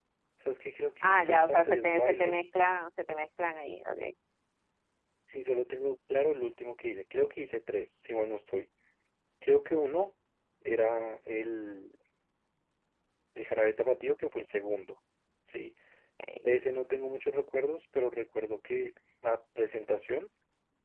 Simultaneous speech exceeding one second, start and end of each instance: 1.0-2.4

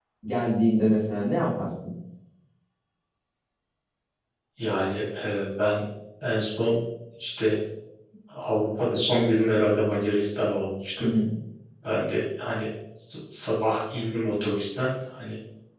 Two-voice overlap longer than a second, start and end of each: none

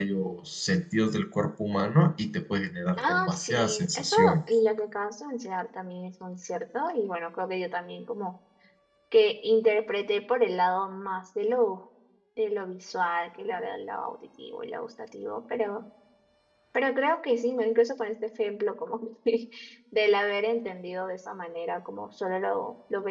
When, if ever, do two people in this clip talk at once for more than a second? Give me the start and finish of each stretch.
3.0-4.4

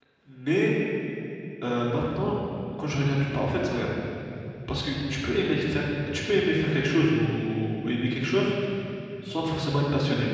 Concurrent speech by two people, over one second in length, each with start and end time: none

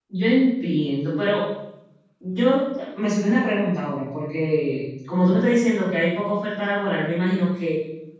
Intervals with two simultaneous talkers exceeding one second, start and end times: none

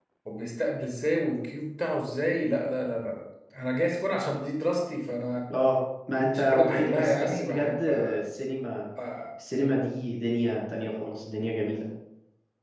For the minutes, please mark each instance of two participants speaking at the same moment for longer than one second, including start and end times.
6.3-7.9

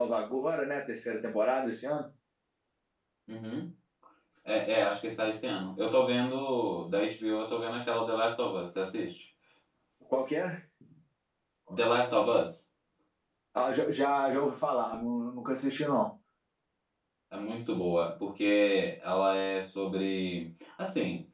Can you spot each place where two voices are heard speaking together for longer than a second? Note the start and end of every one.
none

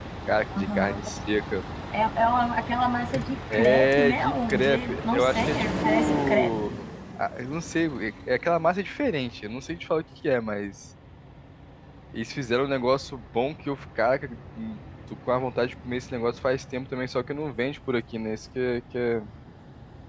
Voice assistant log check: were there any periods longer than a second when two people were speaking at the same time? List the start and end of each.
3.5-6.5

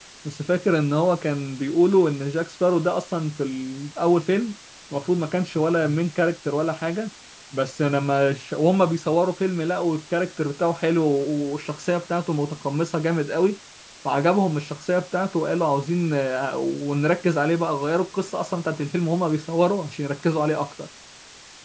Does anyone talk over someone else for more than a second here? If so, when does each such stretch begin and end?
none

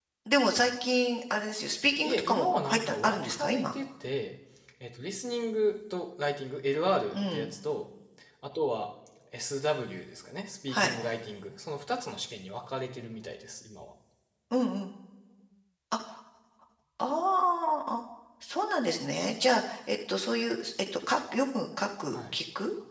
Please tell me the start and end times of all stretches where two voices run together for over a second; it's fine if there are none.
2.0-3.7

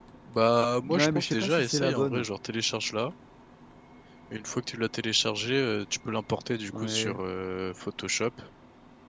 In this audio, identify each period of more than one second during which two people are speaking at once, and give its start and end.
1.0-2.2

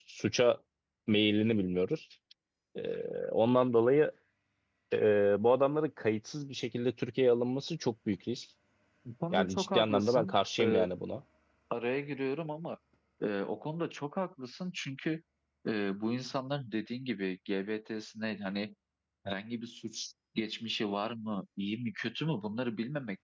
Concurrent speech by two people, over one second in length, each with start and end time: 9.3-10.9

